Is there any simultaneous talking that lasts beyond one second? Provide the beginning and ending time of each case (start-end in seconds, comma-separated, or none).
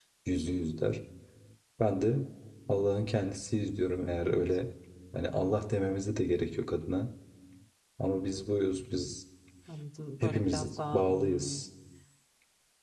10.2-11.6